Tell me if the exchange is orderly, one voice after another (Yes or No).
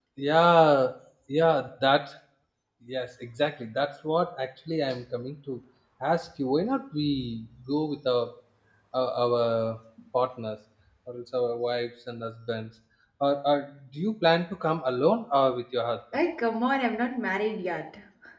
Yes